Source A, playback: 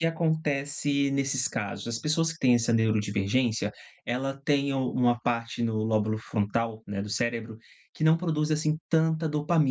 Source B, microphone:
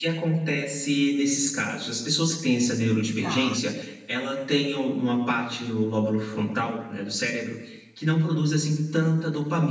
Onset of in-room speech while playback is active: 3.2 s

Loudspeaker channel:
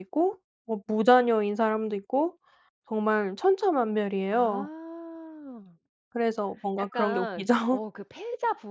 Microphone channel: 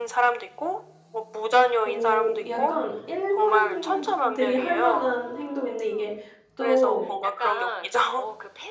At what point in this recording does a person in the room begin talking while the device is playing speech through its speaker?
1.9 s

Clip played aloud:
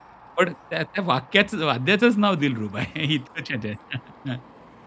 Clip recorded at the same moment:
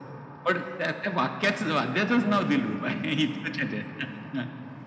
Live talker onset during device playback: none

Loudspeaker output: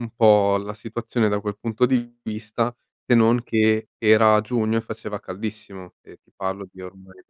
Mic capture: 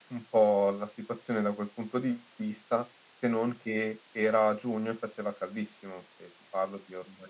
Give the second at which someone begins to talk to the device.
none

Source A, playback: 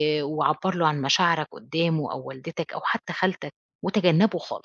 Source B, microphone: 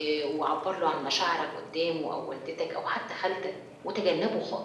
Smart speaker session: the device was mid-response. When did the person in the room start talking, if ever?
none

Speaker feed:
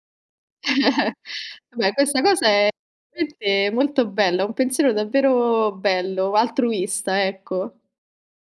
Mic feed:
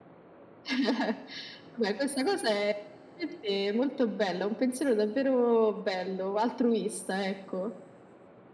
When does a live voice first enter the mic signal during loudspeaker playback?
none

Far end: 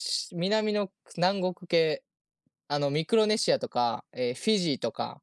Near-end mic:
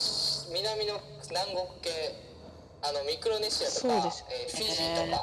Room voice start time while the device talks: 3.6 s

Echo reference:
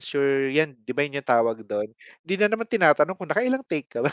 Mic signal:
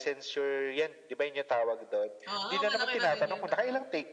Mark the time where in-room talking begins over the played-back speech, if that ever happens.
2.3 s

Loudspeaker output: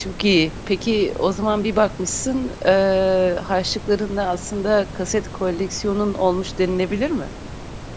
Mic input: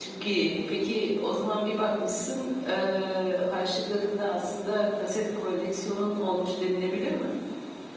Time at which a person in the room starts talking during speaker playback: none

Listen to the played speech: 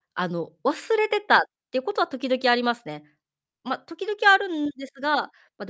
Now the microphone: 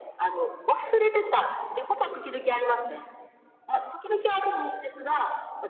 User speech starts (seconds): none

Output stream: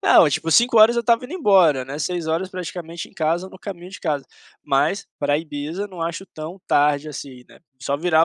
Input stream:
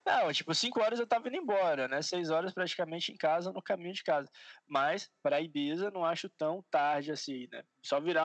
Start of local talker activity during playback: none

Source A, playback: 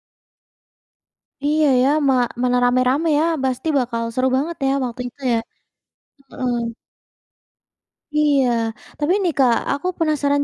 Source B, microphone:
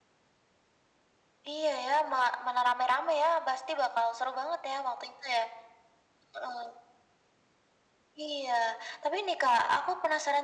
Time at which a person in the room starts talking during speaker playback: none

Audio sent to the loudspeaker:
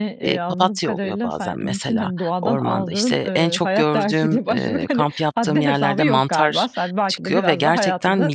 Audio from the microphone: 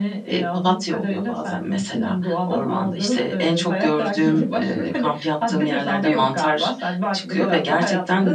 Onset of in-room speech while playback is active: 4.3 s

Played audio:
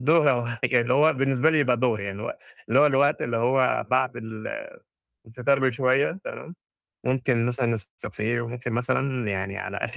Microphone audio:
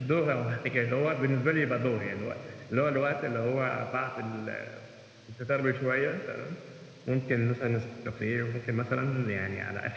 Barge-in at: none

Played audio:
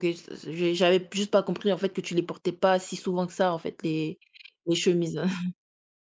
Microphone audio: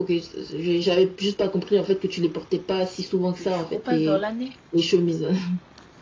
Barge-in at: 3.3 s

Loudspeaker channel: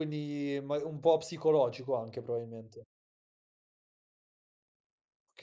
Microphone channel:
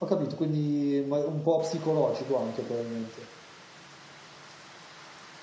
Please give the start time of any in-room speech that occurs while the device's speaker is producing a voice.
none

